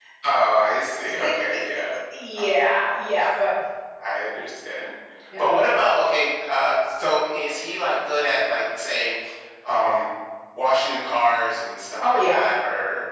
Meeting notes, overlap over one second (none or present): none